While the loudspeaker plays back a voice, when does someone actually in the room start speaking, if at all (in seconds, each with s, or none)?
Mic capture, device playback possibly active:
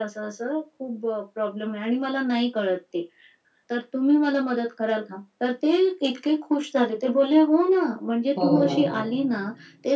8.4 s